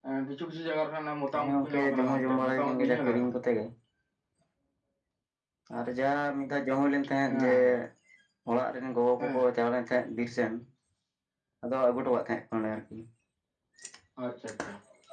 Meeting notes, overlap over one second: present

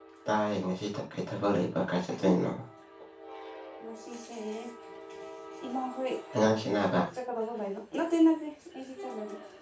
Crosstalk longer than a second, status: none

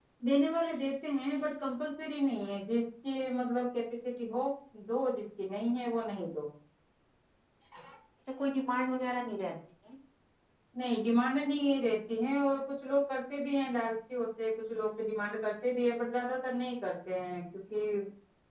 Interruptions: none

